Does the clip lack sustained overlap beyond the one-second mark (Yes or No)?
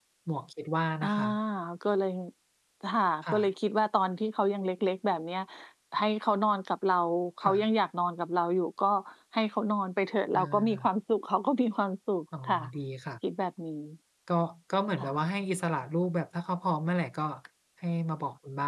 Yes